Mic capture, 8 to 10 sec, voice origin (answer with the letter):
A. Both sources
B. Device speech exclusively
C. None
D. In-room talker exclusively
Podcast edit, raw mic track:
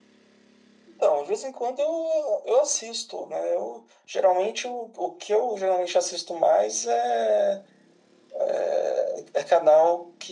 B